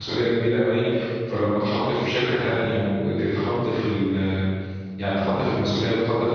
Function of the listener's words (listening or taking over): listening